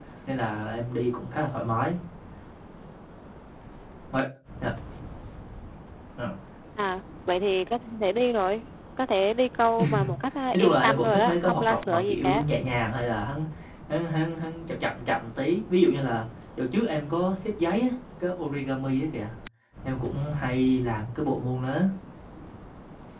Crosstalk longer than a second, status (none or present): present